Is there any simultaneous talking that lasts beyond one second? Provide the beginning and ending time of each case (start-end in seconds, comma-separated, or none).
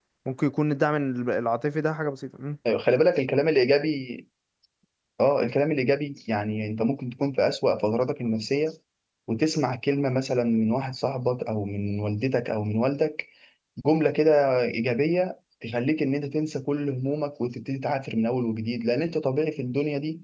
none